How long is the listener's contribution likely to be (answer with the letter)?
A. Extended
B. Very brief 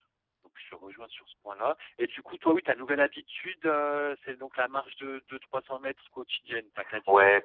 A